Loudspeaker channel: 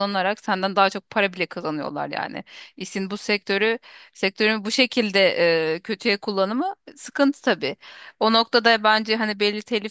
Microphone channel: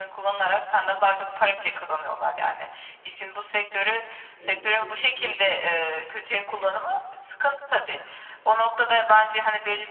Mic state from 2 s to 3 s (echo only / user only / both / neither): echo only